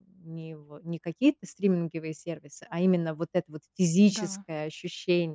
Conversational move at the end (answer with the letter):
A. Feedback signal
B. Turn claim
A